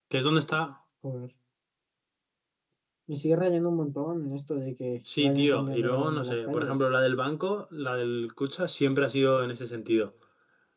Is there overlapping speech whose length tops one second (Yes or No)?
Yes